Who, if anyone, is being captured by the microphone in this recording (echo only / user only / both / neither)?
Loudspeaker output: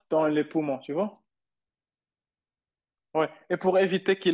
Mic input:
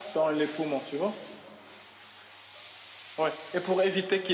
echo only